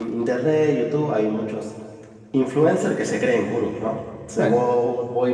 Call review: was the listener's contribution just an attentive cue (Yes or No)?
Yes